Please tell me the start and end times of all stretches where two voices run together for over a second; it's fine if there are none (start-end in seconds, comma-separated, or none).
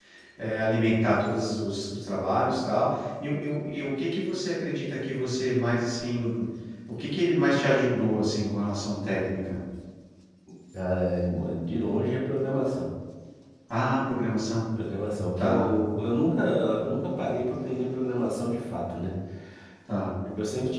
none